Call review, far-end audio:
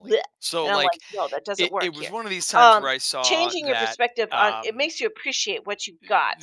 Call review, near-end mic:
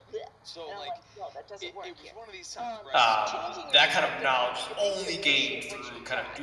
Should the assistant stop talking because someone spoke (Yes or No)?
Yes